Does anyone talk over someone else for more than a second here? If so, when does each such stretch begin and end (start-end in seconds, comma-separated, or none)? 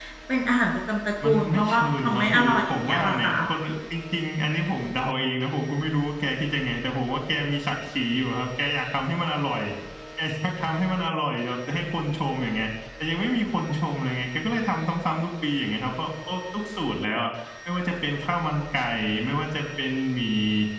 1.2-3.3